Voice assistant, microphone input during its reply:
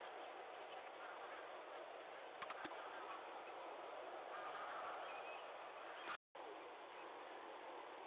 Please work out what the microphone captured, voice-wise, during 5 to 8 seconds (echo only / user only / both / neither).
neither